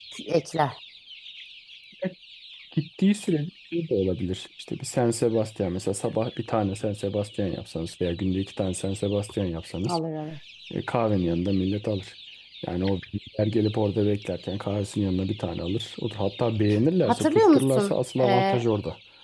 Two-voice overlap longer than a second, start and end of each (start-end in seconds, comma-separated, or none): 17.1-18.6